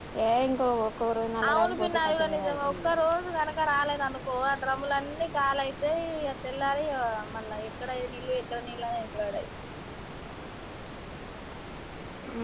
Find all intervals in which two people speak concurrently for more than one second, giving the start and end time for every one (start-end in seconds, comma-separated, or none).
1.5-2.9